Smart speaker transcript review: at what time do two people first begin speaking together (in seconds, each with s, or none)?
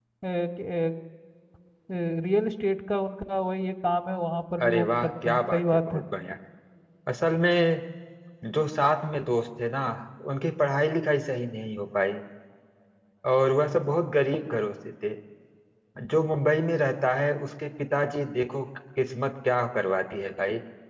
4.6 s